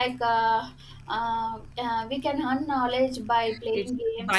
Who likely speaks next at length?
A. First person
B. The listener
B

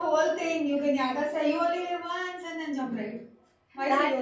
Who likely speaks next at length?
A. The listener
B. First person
A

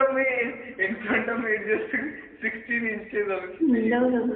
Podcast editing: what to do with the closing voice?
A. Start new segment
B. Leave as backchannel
A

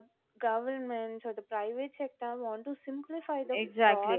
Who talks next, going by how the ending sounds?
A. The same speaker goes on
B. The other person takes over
B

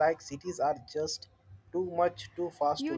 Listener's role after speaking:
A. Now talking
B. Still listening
A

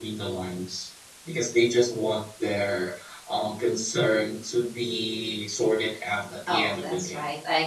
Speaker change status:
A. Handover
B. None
A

